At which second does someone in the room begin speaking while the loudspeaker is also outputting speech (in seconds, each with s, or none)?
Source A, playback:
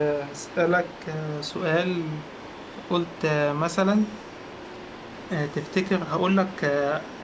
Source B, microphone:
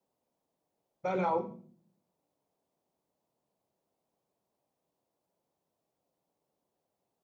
1.0 s